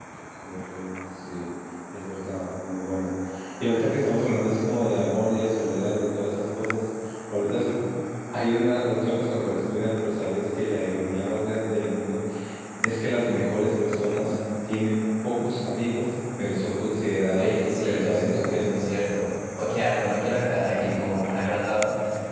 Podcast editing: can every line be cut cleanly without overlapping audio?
No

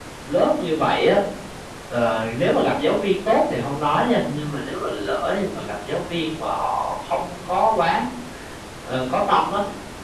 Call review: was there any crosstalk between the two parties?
No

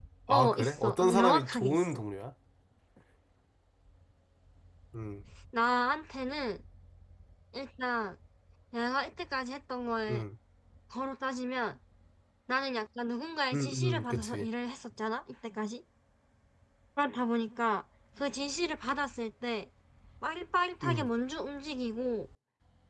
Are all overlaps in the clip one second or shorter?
No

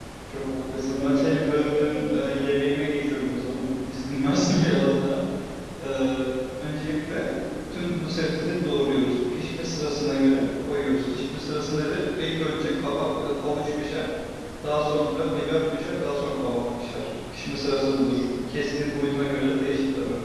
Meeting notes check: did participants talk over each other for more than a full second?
Yes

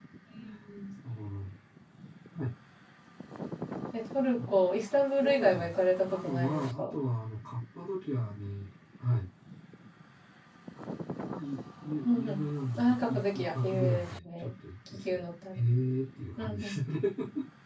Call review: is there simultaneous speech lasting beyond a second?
Yes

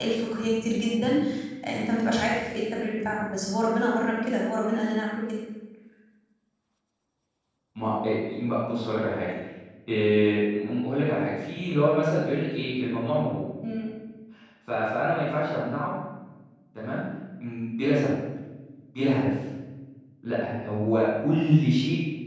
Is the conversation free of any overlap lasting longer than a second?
Yes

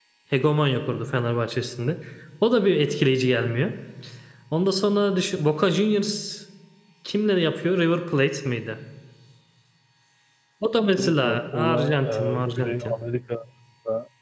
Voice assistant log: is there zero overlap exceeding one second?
No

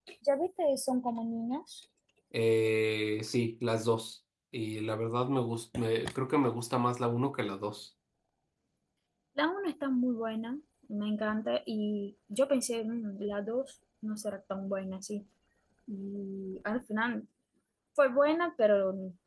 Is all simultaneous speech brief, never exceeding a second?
Yes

